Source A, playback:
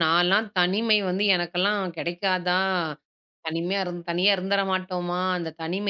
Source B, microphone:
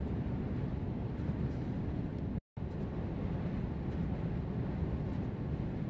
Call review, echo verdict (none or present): none